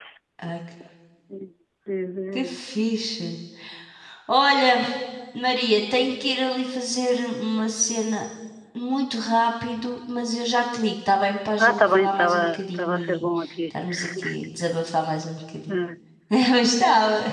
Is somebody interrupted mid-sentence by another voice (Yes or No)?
Yes